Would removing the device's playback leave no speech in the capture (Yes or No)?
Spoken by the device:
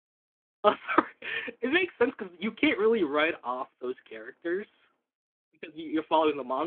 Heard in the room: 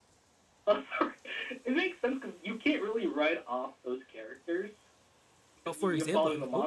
No